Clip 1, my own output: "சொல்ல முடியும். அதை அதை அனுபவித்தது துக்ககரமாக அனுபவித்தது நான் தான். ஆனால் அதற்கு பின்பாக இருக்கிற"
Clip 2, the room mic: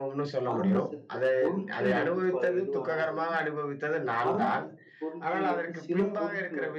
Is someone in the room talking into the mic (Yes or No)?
Yes